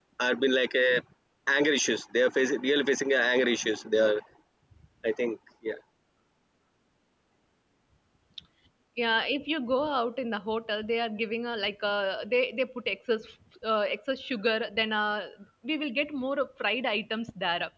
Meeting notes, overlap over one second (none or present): none